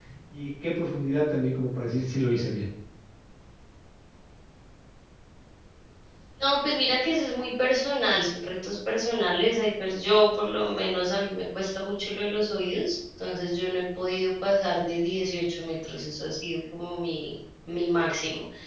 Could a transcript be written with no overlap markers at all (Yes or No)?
Yes